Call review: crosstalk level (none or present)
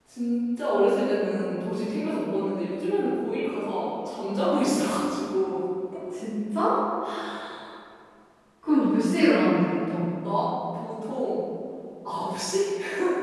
none